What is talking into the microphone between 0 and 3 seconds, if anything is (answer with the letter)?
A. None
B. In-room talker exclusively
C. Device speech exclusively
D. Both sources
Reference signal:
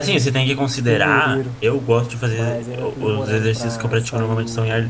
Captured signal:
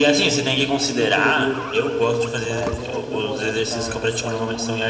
C